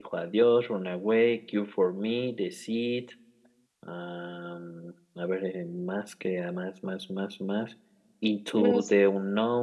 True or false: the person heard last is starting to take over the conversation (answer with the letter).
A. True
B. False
B